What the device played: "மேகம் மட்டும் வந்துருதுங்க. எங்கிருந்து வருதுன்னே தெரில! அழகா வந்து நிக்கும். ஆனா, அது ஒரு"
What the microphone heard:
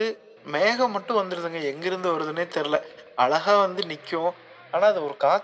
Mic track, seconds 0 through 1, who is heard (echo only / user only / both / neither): echo only